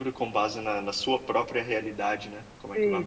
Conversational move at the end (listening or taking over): taking over